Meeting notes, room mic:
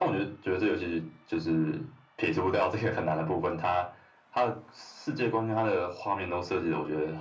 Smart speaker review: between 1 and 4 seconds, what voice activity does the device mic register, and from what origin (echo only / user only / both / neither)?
echo only